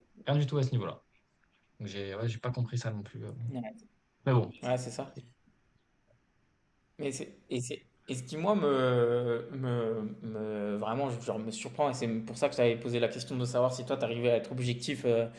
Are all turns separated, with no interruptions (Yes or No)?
Yes